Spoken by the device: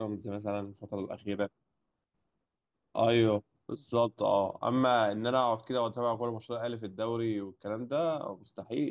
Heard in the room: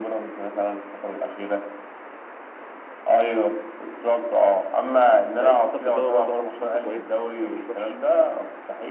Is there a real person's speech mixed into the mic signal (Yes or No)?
Yes